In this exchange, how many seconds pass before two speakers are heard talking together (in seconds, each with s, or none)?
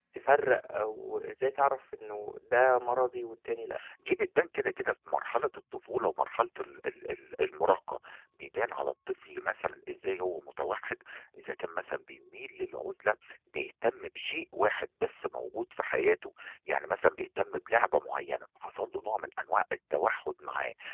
none